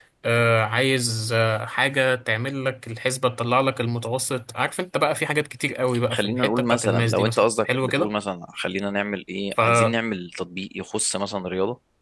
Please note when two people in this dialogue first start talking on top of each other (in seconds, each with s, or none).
6.1 s